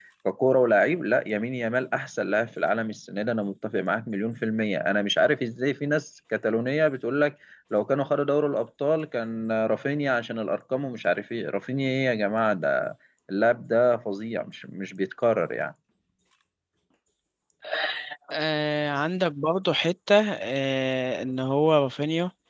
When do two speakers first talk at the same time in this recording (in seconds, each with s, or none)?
none